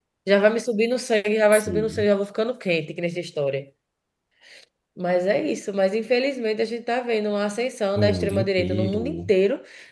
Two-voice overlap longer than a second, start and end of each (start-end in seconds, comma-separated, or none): 8.0-9.3